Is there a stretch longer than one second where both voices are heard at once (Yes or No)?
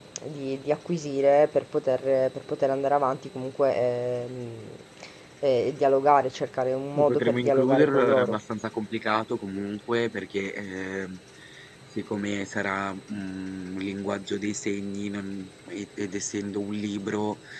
Yes